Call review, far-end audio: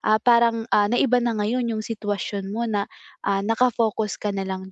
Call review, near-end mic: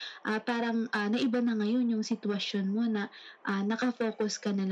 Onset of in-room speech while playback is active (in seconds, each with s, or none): none